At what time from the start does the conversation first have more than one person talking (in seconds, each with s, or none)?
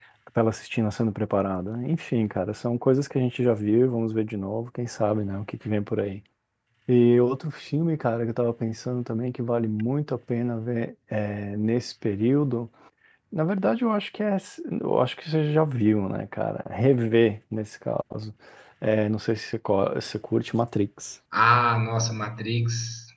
none